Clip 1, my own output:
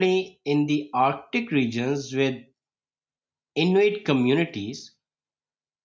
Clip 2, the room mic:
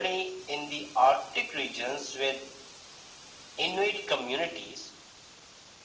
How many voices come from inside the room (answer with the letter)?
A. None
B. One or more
A